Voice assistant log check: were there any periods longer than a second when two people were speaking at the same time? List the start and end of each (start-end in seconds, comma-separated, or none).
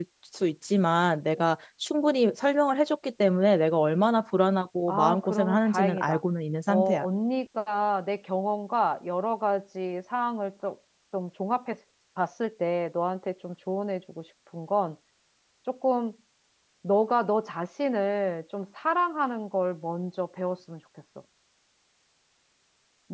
4.9-6.2